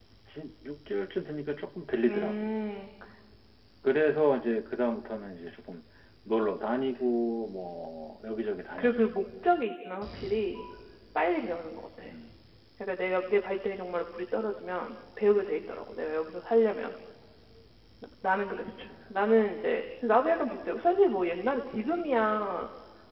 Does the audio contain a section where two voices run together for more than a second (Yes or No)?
No